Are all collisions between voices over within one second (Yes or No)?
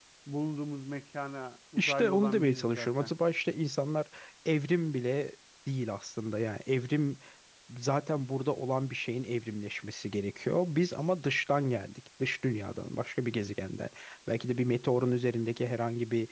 No